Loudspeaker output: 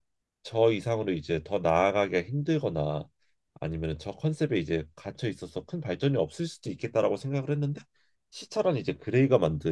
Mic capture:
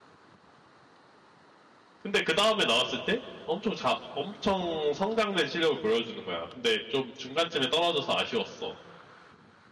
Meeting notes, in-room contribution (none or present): present